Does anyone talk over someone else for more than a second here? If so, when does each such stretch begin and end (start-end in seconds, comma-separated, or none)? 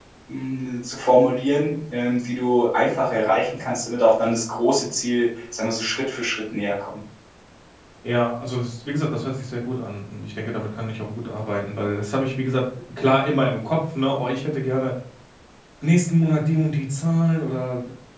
none